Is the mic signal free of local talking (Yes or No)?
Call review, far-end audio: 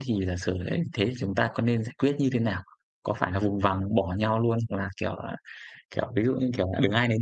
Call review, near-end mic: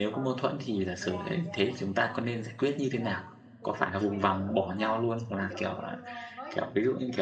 No